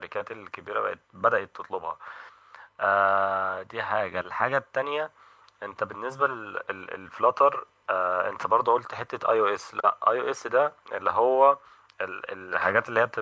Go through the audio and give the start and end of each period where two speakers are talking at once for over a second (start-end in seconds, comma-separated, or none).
none